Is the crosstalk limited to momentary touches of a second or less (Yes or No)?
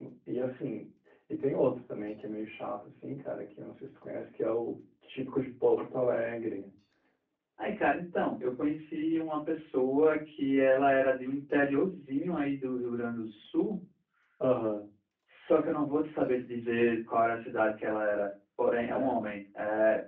Yes